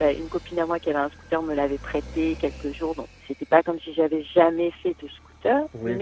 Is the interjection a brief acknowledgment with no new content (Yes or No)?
No